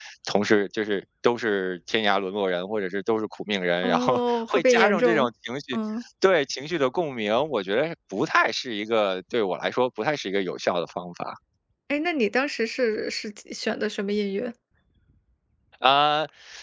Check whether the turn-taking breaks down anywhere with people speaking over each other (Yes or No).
Yes